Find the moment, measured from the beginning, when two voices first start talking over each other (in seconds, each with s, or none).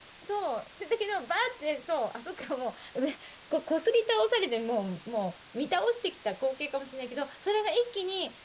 none